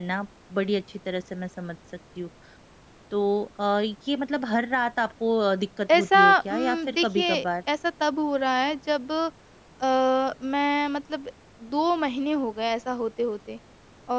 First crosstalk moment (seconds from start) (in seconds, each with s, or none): 5.9 s